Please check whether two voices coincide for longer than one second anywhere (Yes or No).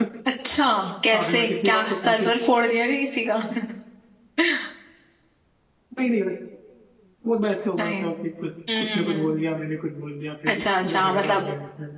Yes